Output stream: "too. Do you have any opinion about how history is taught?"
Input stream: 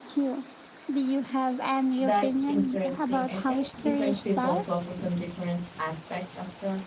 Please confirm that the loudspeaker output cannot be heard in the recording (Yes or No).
No